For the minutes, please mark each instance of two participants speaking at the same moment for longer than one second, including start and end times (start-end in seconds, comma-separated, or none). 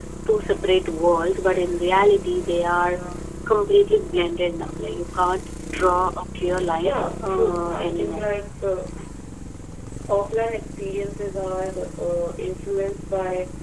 6.8-8.2